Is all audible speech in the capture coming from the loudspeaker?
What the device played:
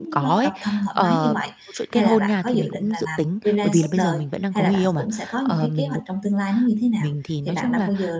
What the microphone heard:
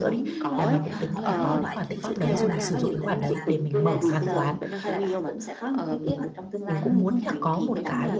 No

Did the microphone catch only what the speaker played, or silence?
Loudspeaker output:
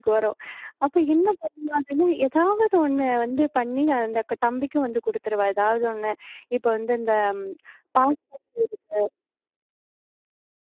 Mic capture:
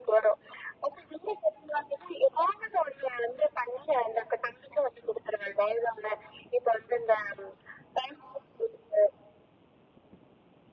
Yes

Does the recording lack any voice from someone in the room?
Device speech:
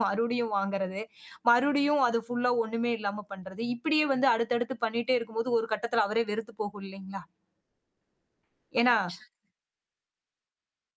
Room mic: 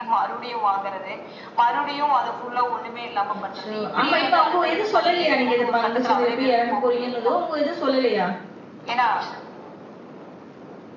No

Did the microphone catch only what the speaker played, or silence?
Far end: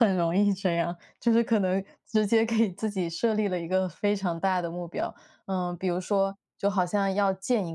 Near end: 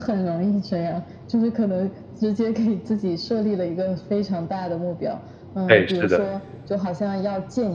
No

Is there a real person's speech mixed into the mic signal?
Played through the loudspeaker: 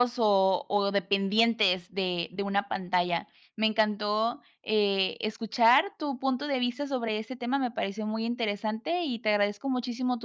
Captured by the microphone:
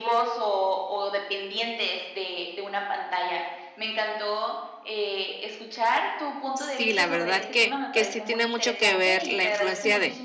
Yes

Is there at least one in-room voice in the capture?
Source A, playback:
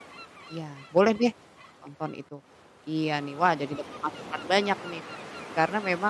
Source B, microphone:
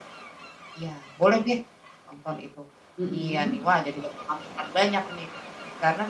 Yes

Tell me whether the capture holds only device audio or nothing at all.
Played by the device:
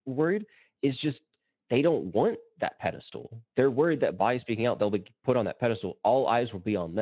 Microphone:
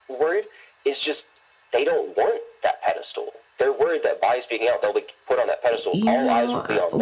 No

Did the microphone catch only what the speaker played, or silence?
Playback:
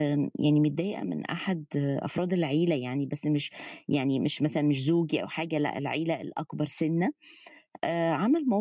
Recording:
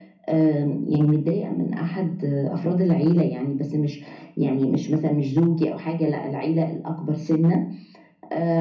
Yes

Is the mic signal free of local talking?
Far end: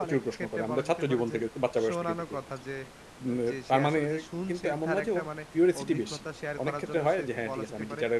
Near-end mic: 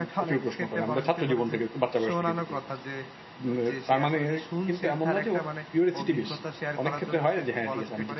Yes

